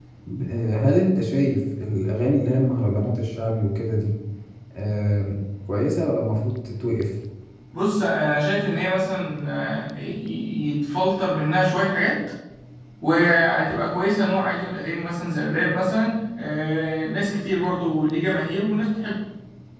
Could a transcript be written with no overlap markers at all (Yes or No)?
Yes